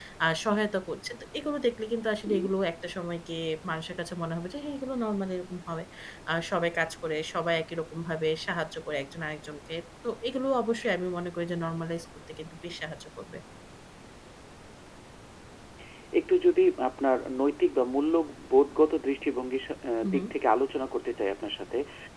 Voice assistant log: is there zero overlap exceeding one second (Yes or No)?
Yes